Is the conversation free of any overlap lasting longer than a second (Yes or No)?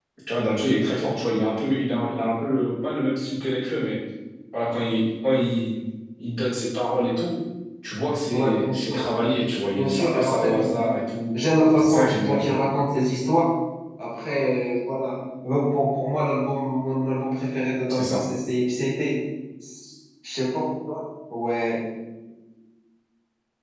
No